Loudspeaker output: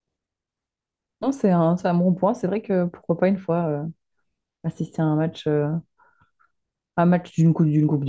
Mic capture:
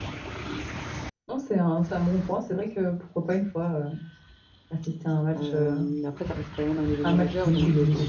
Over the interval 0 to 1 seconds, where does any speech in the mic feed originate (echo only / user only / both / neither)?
neither